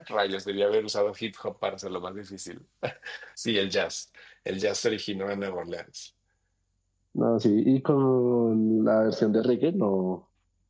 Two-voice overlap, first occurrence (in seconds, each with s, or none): none